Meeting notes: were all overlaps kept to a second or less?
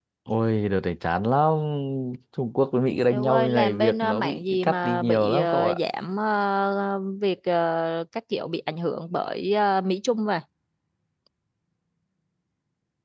No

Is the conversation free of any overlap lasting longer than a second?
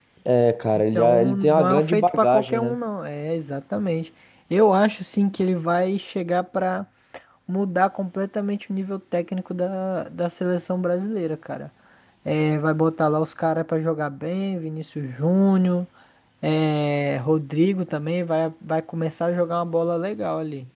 No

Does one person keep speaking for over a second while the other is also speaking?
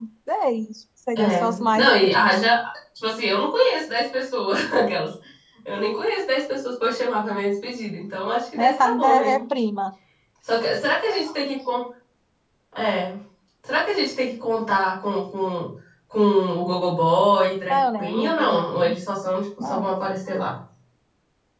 Yes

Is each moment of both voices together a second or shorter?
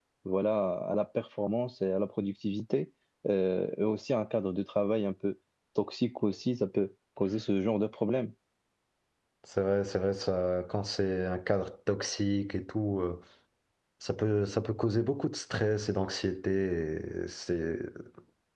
Yes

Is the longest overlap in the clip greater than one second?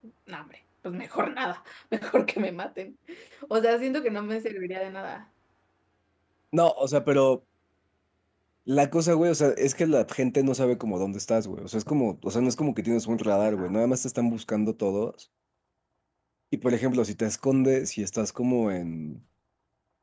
No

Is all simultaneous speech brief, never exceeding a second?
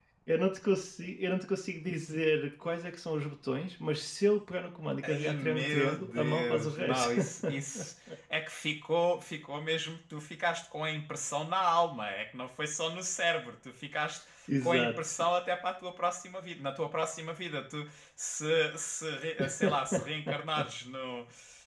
No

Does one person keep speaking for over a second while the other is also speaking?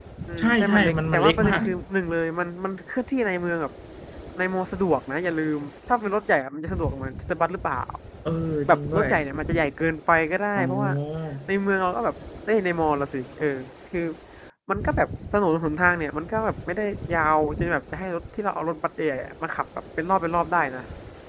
Yes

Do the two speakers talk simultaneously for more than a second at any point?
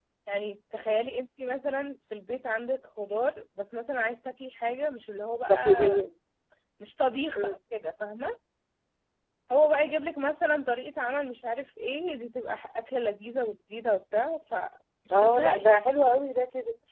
No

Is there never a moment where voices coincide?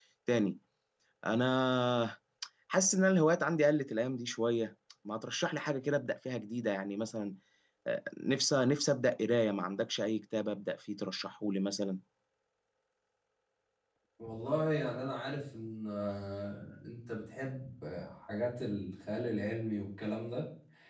Yes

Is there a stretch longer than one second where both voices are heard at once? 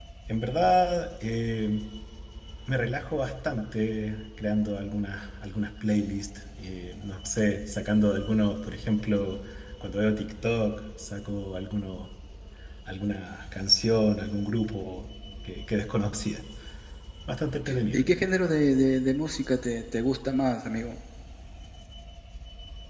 No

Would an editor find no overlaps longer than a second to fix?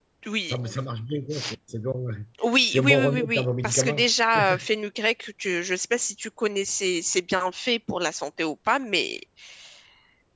No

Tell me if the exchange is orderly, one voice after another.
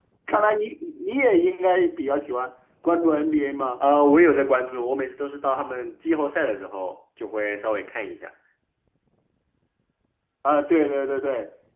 Yes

